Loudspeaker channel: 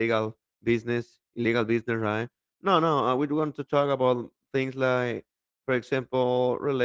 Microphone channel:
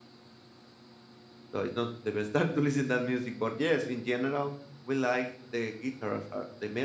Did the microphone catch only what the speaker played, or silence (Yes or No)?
No